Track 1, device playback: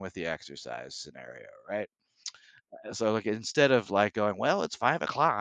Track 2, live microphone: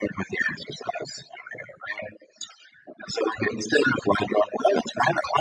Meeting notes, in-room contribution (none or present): none